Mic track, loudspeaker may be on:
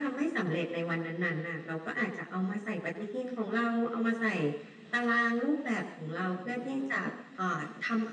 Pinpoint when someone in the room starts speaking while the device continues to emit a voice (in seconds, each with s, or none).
none